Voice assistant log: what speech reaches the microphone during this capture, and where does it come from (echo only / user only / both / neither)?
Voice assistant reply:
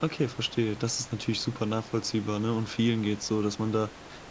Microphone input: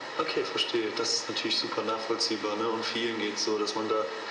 echo only